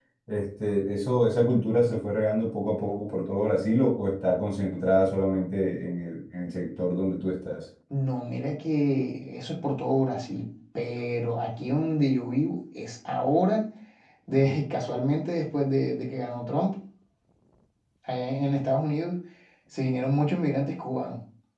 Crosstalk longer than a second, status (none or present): none